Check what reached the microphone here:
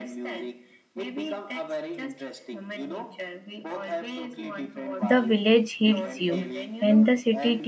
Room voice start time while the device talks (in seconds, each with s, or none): 5.1 s